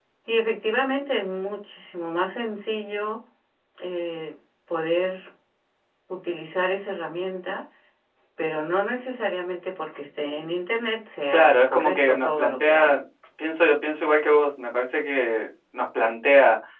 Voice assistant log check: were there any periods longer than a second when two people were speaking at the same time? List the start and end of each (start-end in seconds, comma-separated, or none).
11.3-13.0